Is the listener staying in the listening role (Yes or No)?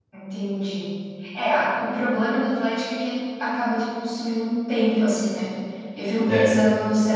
Yes